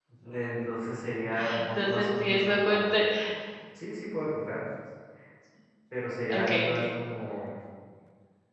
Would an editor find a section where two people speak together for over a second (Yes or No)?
Yes